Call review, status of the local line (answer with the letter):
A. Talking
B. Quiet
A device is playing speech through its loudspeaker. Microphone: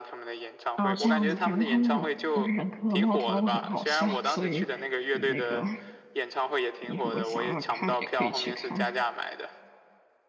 A